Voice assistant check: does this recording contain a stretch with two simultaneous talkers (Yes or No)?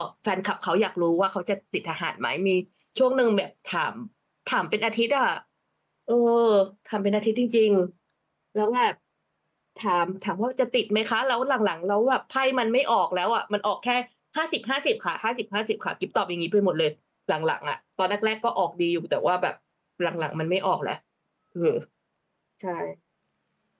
No